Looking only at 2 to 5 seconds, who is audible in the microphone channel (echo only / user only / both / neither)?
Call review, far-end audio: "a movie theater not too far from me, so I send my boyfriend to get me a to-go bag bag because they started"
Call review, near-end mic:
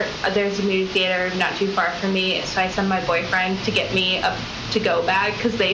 echo only